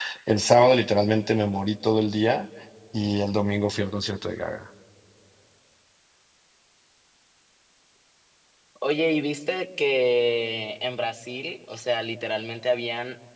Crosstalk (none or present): none